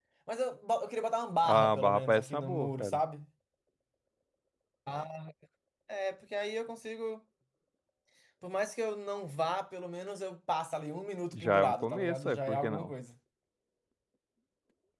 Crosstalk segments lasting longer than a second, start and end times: 1.4-3.0, 11.3-12.9

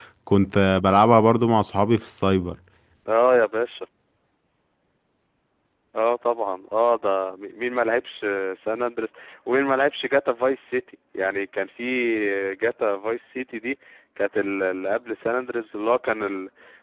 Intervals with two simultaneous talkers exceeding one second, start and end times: none

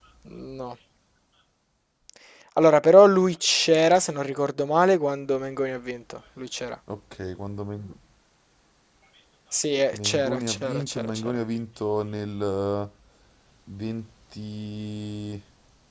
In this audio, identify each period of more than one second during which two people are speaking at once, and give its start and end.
10.0-11.4

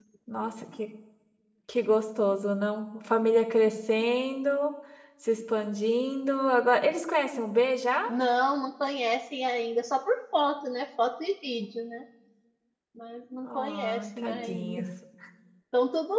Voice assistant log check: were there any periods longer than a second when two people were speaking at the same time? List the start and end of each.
13.4-14.8

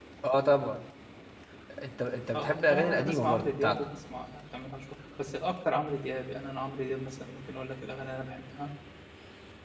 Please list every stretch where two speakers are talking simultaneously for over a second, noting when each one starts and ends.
2.4-3.8

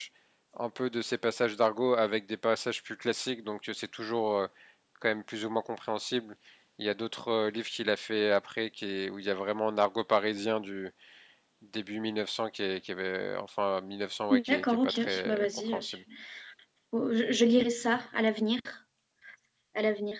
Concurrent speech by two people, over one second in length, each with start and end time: 14.3-15.8

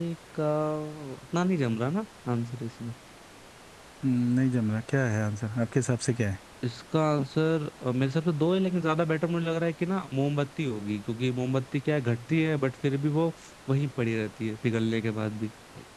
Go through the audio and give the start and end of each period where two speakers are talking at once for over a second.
none

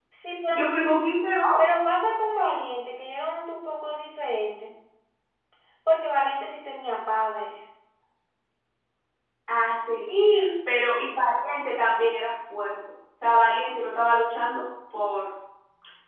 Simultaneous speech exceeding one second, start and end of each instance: none

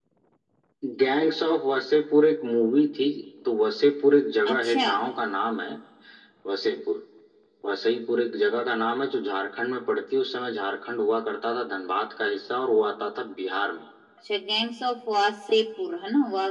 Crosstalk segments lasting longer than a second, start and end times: none

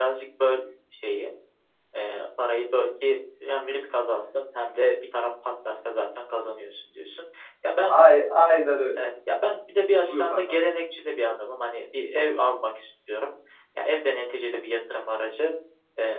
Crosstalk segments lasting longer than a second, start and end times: none

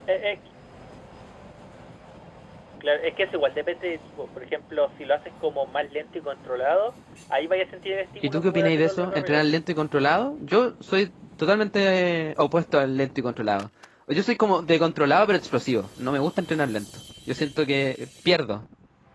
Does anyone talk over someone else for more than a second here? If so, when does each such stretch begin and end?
8.2-9.4

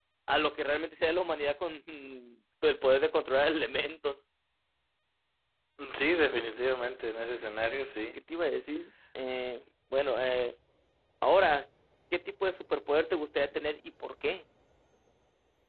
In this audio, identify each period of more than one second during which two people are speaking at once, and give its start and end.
none

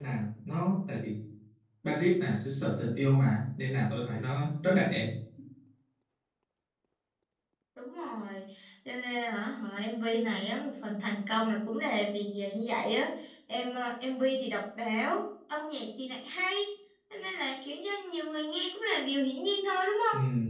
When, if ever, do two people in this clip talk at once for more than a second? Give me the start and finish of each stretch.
none

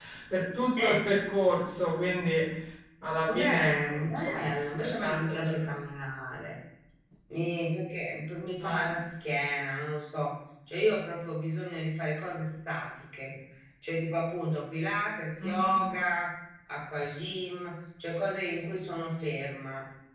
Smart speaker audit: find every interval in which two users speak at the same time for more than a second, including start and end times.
3.3-5.6

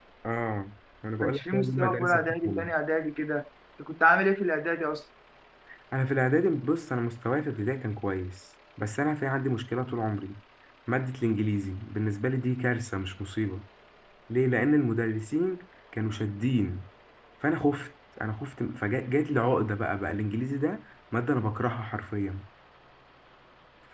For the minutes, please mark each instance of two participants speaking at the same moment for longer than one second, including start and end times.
1.2-2.7

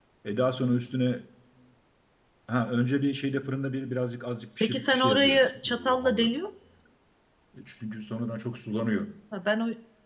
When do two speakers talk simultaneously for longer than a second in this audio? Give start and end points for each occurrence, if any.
4.6-6.3

